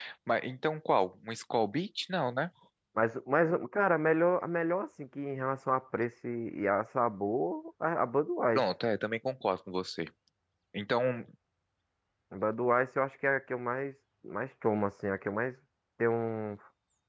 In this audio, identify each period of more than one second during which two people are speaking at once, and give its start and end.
none

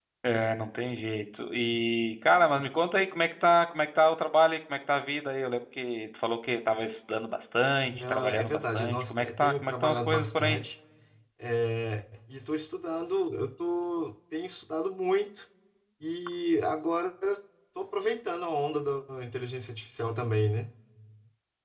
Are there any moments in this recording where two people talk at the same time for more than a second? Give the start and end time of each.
7.8-10.6

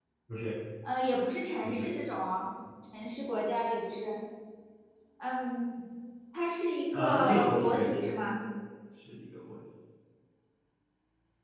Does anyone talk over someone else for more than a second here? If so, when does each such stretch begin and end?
6.9-8.1

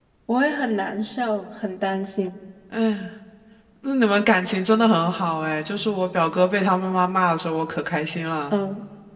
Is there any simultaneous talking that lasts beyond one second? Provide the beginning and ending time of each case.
none

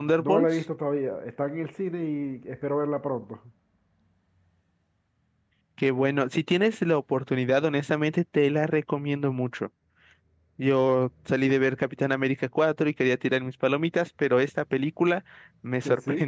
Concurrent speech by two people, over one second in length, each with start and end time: none

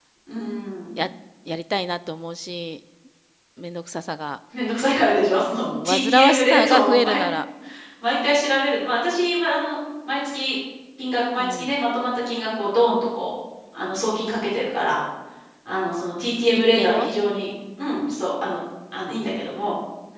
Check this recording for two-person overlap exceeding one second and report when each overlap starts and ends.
5.6-7.2

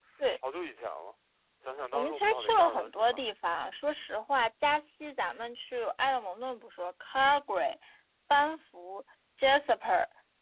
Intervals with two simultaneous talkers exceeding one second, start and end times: 1.9-3.2

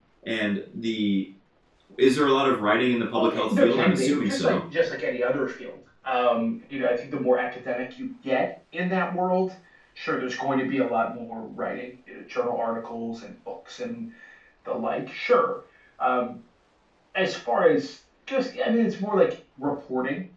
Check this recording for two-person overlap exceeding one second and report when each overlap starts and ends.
3.1-4.6

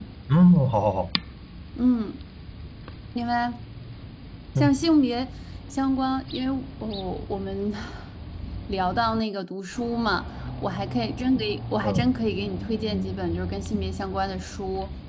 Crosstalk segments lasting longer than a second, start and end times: none

